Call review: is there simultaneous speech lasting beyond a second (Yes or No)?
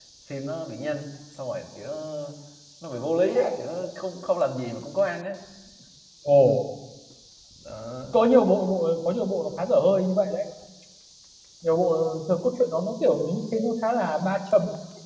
No